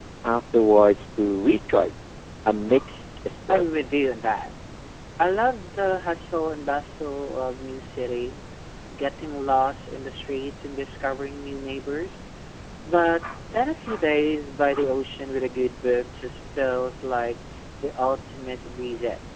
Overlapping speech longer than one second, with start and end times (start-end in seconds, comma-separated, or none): none